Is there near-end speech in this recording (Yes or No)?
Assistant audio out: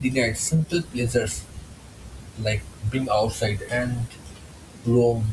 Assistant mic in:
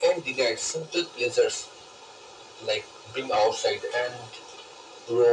No